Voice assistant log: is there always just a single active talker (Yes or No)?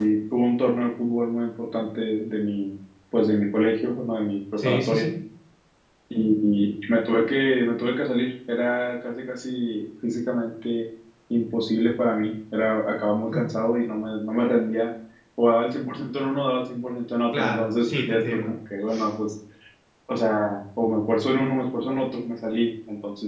No